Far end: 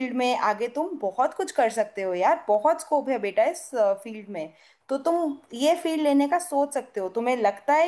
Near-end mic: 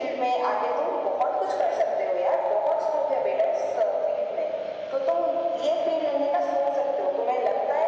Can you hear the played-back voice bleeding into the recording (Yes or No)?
Yes